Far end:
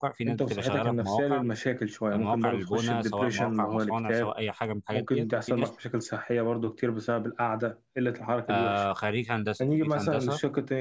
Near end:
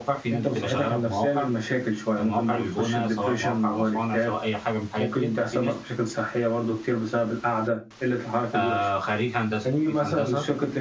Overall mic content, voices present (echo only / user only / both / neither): echo only